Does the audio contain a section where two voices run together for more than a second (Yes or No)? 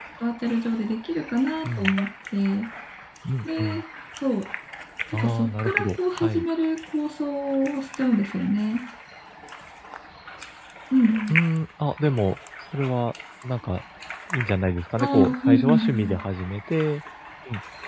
Yes